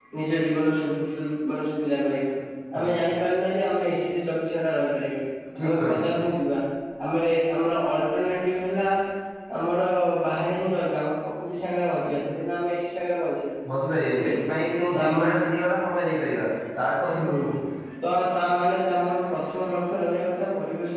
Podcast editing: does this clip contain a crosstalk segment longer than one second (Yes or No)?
No